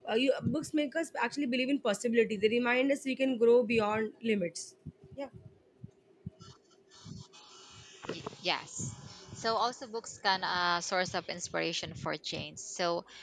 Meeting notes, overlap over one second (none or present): none